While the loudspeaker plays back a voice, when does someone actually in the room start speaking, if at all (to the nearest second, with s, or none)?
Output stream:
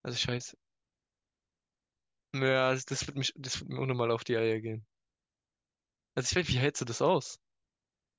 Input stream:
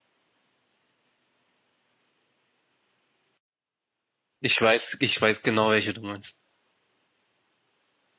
4 s